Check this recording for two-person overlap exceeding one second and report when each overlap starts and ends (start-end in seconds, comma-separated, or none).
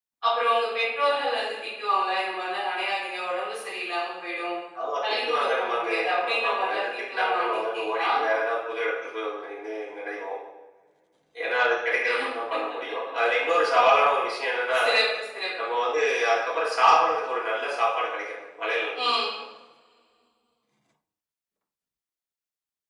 5.1-8.1